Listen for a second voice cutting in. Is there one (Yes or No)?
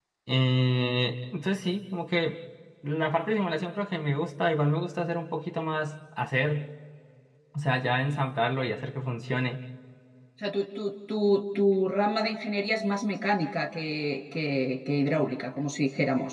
No